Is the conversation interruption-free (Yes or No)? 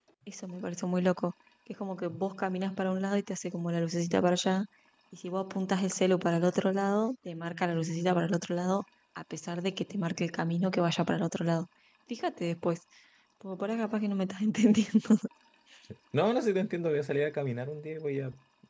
Yes